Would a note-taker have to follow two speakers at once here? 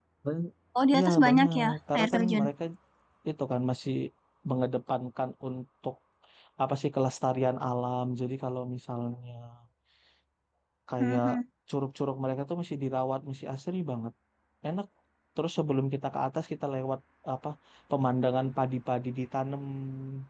Yes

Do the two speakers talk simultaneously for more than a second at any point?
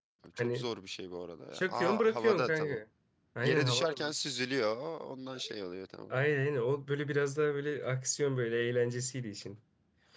Yes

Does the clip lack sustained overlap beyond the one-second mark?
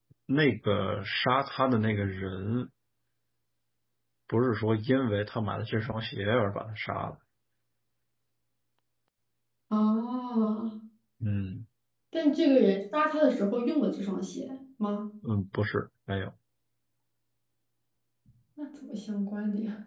Yes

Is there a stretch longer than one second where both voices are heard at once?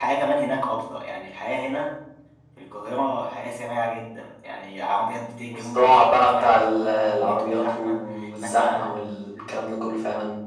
Yes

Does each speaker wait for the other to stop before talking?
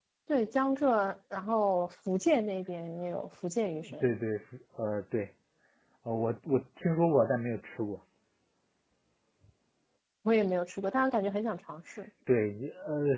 Yes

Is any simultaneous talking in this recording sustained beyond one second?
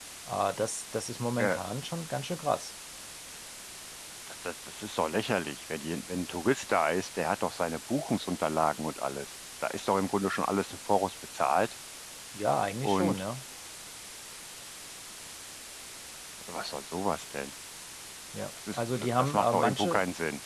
Yes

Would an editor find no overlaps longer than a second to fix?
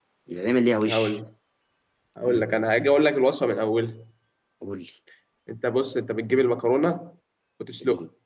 Yes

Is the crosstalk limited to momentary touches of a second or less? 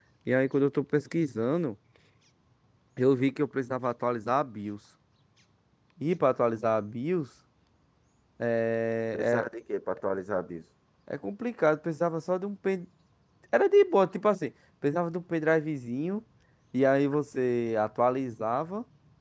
Yes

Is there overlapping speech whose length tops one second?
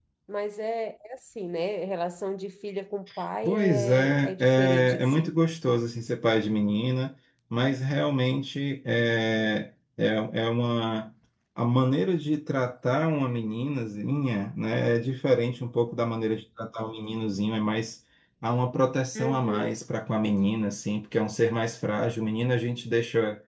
Yes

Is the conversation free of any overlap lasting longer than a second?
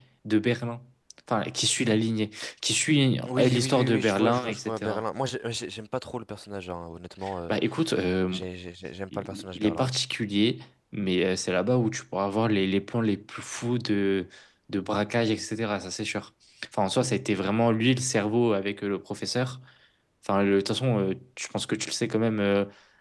No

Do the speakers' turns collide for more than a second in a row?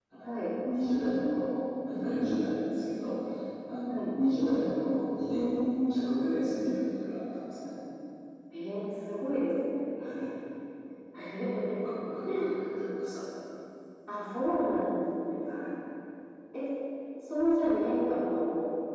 No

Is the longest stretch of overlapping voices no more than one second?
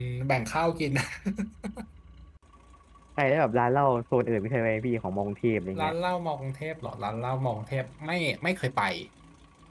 Yes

